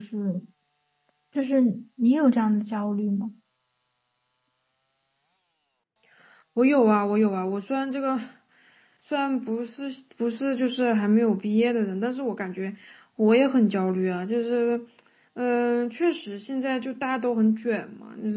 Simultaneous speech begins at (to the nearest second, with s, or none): none